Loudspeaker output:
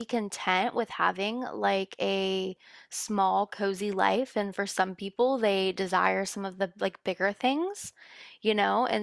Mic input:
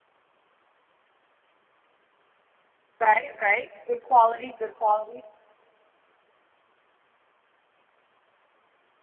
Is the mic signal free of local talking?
No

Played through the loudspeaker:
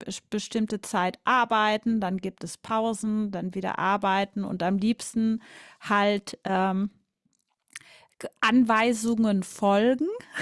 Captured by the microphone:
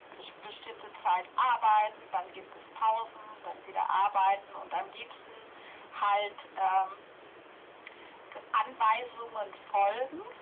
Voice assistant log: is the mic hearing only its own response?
Yes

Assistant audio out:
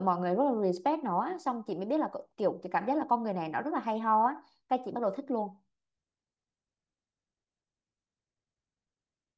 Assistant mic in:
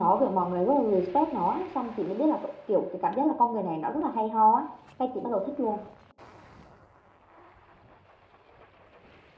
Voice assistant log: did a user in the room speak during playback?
No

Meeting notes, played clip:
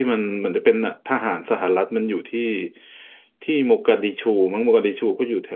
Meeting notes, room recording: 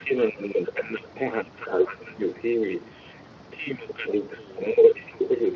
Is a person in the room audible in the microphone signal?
No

